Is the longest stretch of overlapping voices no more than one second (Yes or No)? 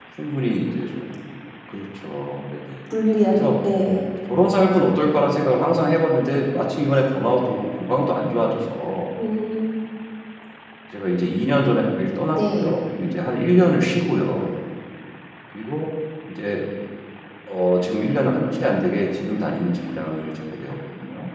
Yes